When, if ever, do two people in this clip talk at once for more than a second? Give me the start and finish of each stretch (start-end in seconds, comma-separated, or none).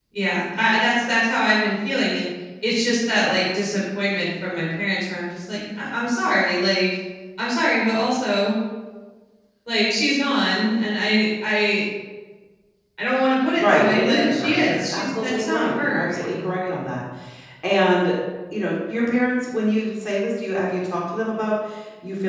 13.6-16.8